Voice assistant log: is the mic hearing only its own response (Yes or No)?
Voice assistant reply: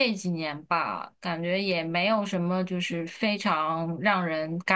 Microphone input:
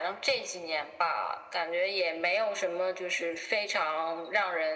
Yes